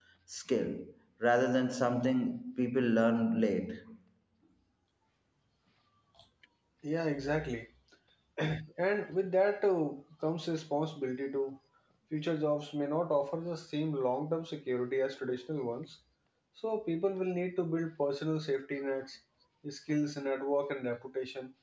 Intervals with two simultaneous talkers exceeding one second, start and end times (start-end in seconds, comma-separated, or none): none